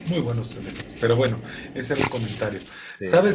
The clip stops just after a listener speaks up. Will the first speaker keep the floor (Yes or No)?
Yes